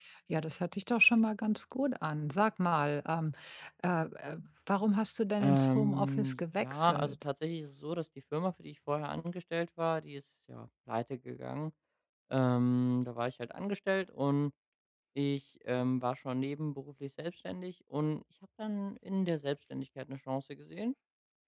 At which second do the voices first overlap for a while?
5 s

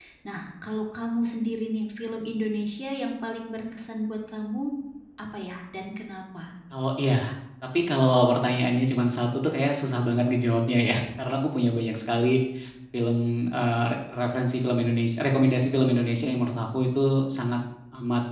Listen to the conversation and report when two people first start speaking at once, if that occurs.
none

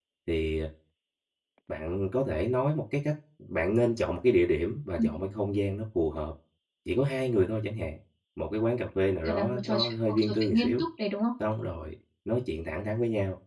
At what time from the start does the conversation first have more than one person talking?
9 s

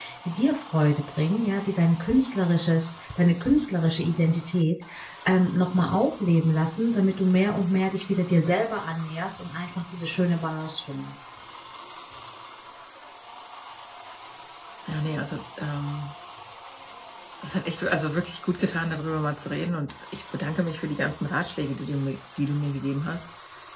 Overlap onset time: none

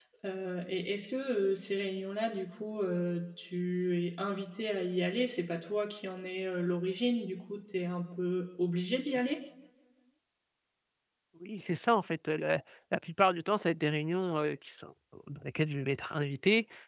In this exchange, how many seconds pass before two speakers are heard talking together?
none

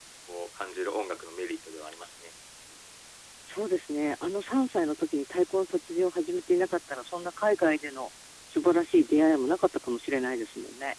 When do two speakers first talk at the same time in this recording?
none

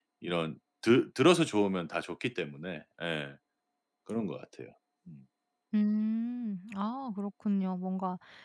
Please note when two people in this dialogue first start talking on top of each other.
none

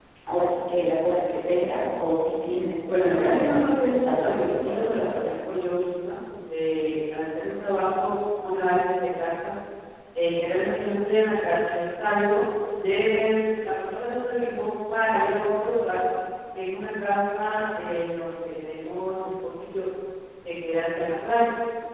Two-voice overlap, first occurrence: 3 s

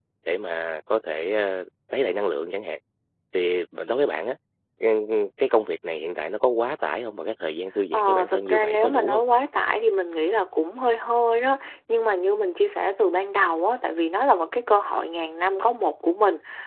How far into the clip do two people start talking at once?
8 s

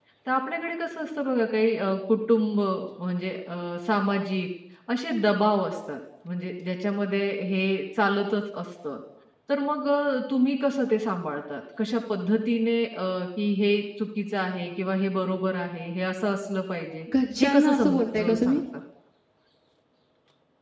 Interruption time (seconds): 17 s

